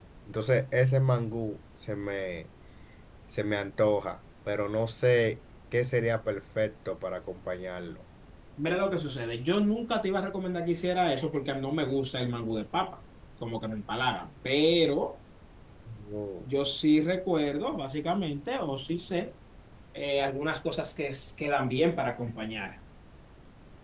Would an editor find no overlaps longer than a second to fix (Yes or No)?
Yes